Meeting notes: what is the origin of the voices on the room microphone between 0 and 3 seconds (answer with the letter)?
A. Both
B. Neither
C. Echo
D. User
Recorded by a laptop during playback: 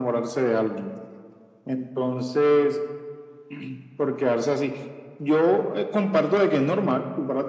C